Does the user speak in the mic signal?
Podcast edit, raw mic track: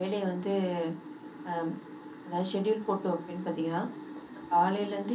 No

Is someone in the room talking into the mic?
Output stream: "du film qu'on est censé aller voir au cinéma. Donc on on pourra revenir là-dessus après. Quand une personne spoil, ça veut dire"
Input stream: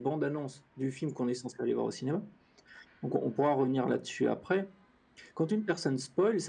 No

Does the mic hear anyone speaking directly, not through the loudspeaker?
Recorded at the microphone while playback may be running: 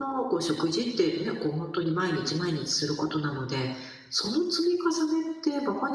Yes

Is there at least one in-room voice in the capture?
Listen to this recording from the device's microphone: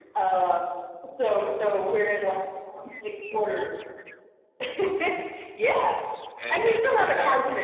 Yes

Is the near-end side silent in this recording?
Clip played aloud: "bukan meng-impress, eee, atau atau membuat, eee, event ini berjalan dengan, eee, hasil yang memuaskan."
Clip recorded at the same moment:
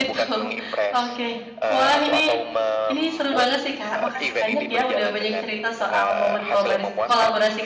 No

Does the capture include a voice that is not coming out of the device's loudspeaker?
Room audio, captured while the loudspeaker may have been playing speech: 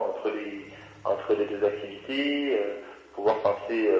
No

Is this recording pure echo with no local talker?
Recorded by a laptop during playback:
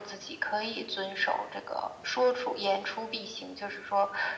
Yes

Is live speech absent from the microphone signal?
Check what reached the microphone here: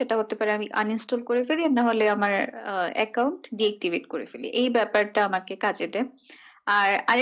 Yes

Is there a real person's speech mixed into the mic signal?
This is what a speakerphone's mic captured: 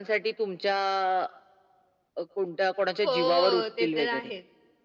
Yes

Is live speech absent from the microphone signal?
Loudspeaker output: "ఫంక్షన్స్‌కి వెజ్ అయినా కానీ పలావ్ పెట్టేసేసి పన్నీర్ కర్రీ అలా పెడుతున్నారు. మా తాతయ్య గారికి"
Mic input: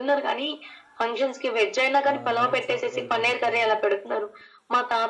No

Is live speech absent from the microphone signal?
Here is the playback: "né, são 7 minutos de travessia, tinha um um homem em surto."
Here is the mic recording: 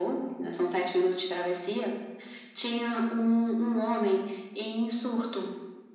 Yes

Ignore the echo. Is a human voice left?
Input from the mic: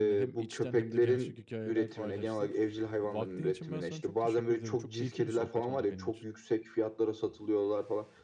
Yes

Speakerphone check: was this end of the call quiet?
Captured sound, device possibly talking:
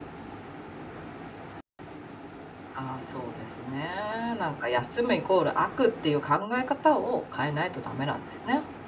No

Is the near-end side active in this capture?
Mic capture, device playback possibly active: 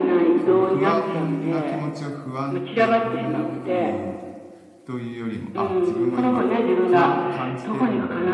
Yes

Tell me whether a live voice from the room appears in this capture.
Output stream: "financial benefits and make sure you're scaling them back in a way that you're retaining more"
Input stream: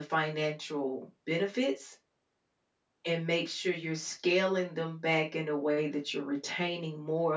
No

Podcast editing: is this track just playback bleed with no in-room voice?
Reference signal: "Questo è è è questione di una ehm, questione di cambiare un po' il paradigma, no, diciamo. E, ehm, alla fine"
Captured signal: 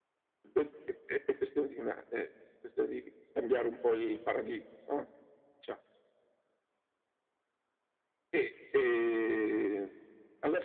Yes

